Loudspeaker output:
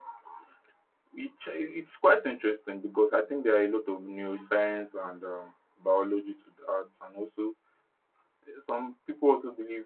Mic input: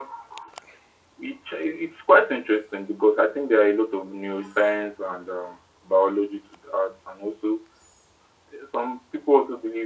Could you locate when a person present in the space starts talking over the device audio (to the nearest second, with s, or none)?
none